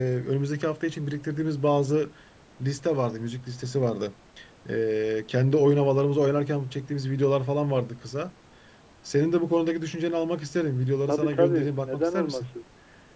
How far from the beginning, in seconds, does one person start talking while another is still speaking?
11.1 s

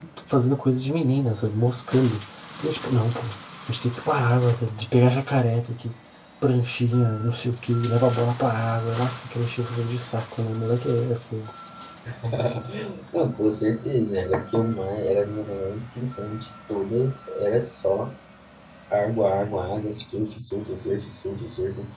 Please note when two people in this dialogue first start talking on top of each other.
none

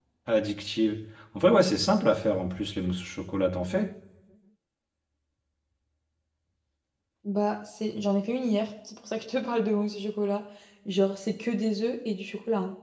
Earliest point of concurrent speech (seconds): none

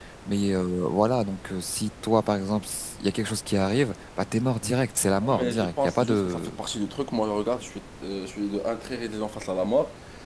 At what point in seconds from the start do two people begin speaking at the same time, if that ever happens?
5.2 s

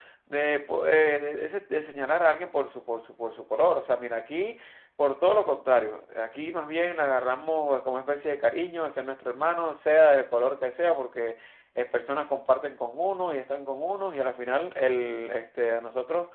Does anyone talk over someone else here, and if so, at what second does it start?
none

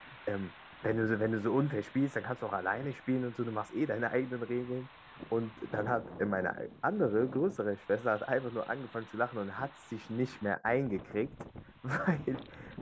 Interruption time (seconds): none

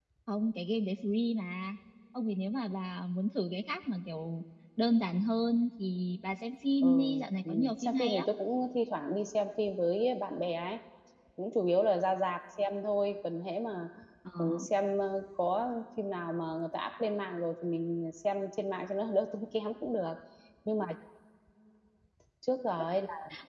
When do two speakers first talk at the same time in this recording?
6.8 s

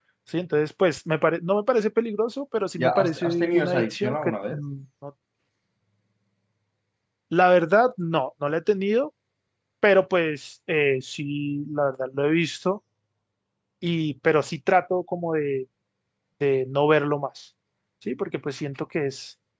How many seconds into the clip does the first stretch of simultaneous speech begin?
2.8 s

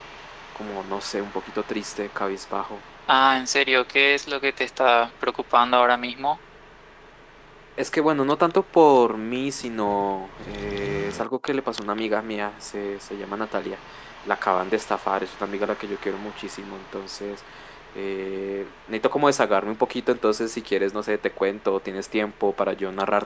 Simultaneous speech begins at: none

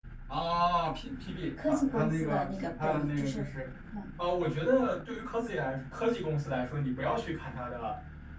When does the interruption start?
1.6 s

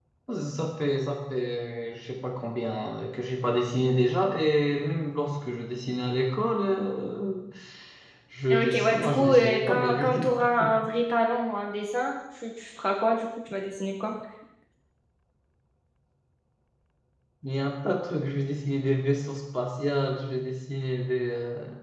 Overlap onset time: 8.5 s

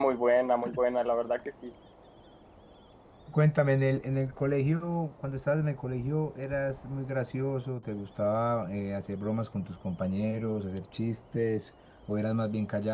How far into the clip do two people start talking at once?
none

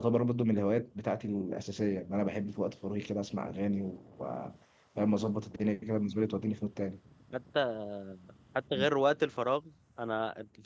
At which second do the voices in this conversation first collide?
none

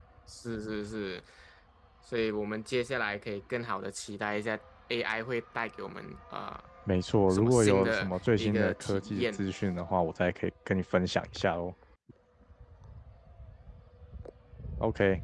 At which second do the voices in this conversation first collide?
7.3 s

